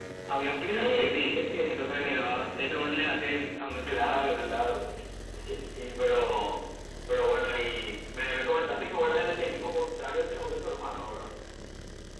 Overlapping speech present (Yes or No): Yes